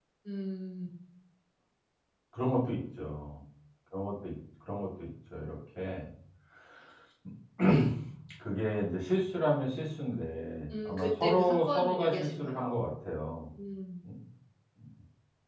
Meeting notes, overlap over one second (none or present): present